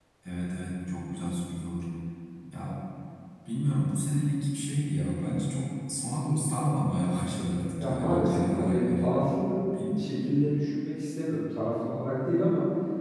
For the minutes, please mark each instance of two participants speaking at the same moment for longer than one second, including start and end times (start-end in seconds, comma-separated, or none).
7.8-9.1